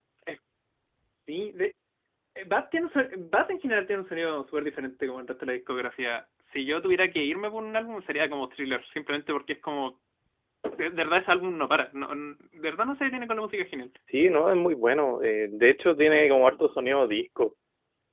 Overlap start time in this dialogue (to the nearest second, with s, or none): none